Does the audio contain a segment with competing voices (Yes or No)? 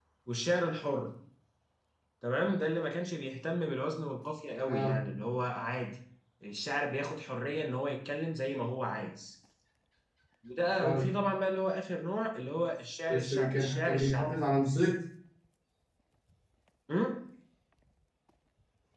Yes